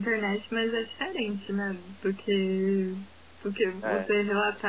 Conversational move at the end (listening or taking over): listening